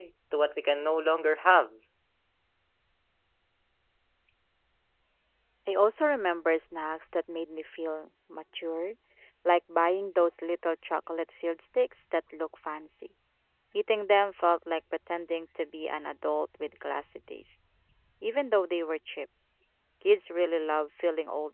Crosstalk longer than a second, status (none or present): none